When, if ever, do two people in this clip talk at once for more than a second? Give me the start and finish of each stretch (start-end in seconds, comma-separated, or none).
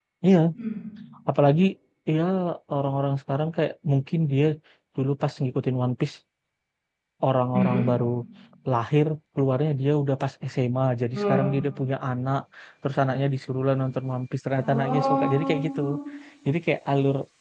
14.6-15.8